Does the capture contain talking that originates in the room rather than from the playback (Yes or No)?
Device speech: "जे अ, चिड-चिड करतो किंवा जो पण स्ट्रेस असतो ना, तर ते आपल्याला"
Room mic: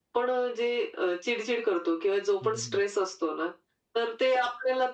Yes